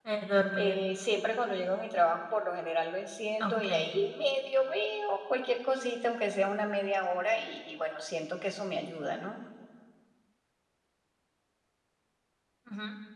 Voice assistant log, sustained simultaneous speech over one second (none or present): none